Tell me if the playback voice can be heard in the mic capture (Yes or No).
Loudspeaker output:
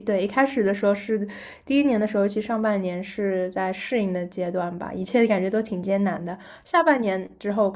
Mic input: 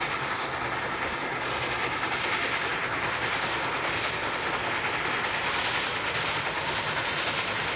No